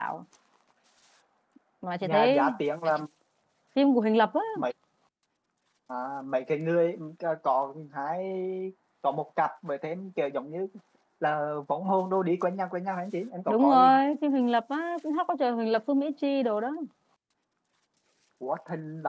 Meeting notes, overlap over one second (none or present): none